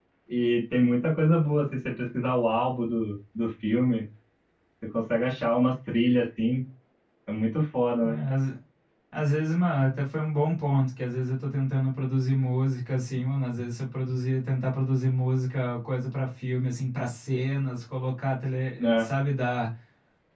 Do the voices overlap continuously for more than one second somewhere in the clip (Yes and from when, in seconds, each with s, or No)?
No